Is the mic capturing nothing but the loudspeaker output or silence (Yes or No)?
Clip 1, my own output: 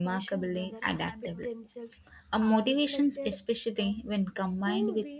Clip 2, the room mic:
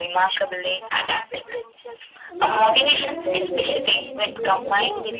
No